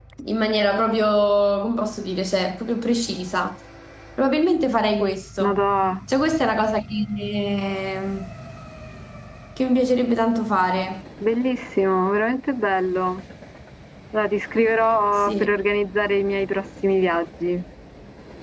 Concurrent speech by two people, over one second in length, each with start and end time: none

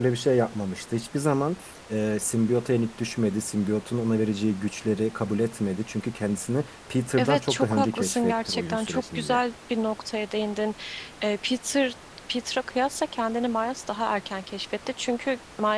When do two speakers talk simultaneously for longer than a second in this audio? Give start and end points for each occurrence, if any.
7.2-9.4

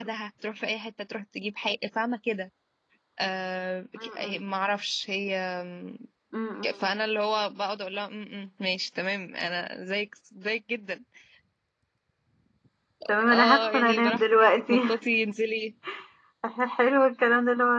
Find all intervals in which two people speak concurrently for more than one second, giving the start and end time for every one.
13.3-14.8

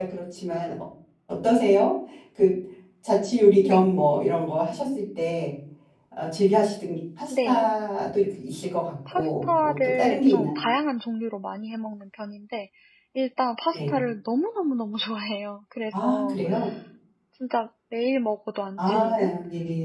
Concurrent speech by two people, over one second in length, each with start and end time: 9.1-10.5

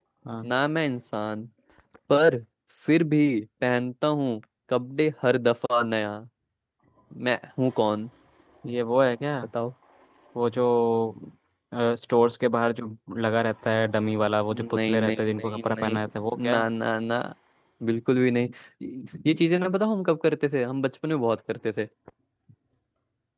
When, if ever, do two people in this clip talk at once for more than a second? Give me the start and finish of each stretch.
14.5-16.0

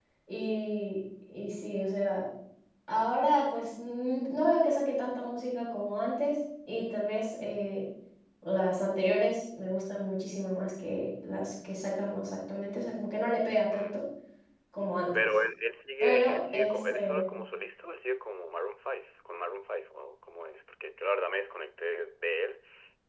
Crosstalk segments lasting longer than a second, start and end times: 16.0-17.3

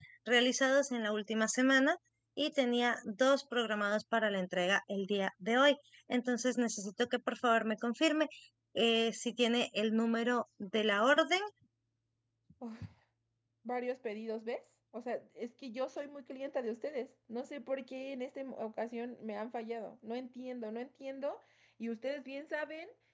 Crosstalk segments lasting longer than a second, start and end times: none

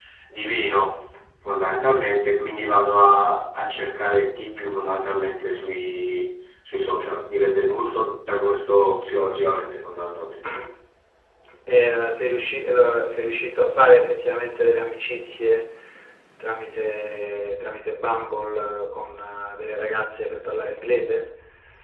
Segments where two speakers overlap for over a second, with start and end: none

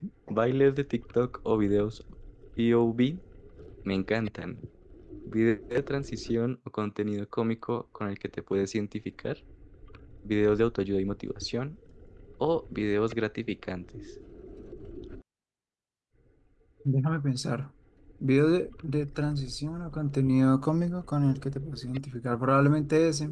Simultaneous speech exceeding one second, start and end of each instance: none

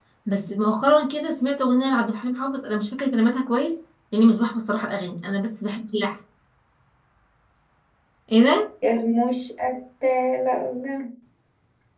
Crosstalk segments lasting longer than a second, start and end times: none

